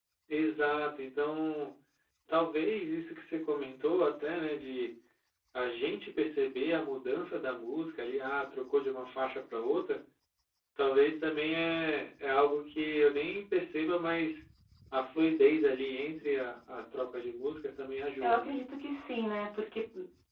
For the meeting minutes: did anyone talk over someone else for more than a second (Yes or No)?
No